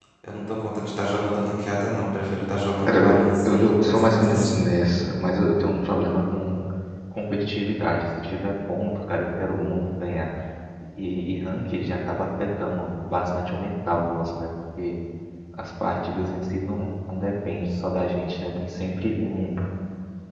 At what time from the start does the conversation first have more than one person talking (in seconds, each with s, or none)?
2.8 s